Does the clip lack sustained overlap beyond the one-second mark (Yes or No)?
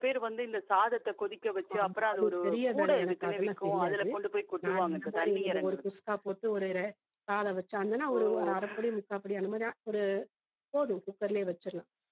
No